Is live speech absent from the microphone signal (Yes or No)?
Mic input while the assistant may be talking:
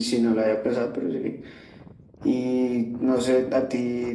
Yes